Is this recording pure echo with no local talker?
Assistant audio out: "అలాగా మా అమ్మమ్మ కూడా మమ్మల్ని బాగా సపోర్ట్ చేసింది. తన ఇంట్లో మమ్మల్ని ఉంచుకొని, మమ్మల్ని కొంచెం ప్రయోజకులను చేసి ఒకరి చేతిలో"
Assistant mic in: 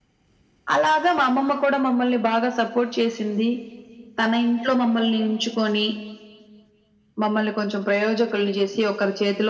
Yes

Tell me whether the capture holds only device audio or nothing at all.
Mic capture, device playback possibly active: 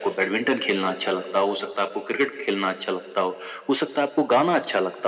Yes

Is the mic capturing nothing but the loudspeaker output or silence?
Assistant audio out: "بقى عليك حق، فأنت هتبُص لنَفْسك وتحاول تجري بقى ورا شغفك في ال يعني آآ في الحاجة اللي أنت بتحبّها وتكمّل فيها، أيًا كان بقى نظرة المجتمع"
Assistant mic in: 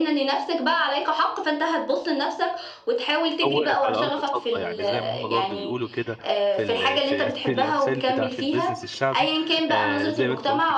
No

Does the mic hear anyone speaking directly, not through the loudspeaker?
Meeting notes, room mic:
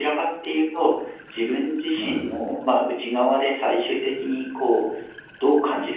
Yes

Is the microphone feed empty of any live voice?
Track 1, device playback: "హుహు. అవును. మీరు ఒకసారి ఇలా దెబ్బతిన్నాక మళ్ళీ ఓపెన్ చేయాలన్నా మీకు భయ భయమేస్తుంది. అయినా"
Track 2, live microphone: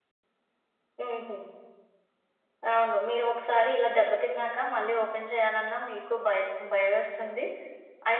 Yes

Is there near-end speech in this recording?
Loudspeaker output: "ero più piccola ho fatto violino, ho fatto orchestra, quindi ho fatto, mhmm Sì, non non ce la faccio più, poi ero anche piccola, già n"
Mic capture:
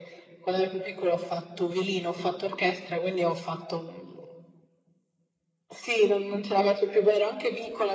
No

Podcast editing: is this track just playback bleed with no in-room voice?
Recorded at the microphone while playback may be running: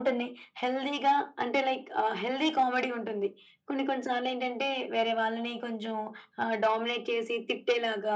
Yes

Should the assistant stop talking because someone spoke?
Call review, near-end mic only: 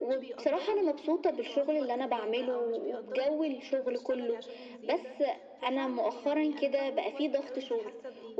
Yes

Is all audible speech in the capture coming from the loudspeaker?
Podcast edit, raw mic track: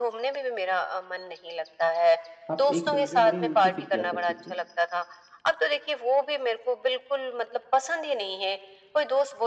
No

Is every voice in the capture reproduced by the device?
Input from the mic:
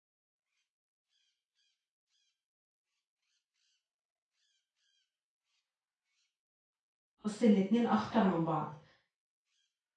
No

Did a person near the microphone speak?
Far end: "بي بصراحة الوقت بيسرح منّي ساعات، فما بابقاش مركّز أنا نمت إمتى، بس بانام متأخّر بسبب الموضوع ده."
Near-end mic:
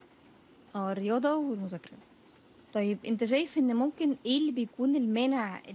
Yes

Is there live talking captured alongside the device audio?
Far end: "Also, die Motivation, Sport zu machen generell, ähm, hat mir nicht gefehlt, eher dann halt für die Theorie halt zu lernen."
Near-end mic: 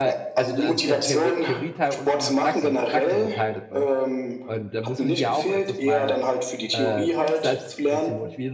Yes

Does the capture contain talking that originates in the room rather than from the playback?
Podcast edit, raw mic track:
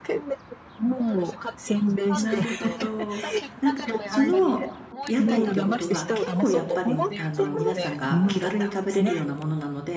Yes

